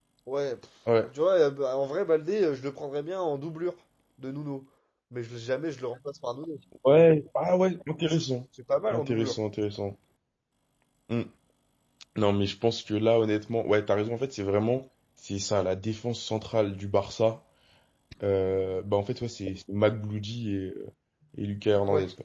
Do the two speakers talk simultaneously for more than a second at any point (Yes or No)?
No